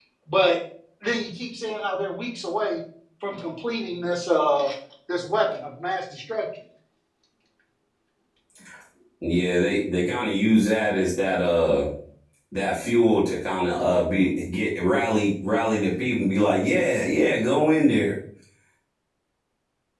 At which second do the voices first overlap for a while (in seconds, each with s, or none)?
none